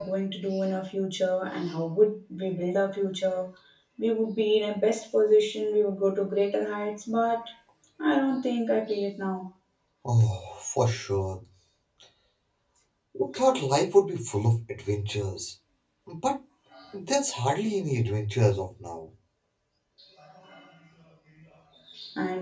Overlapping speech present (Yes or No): No